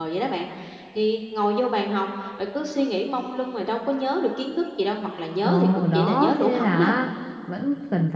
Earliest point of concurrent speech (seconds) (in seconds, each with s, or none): 5.4 s